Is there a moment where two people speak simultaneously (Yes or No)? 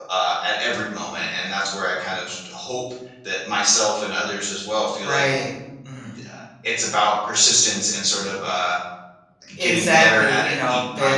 Yes